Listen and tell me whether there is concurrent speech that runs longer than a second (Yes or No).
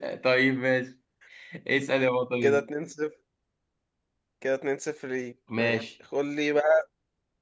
No